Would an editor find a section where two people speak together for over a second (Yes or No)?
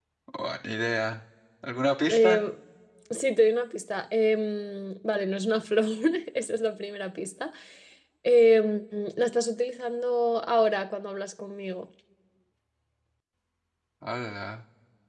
No